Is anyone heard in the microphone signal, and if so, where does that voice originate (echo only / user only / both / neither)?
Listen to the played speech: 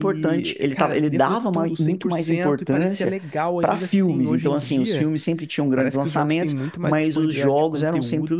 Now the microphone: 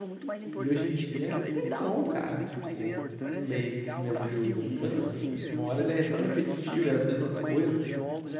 both